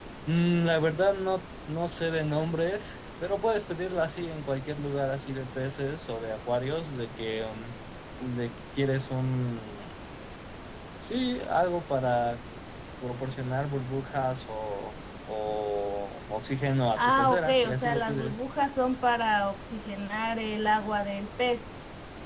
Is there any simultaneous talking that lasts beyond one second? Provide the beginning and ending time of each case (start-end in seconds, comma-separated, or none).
16.9-18.4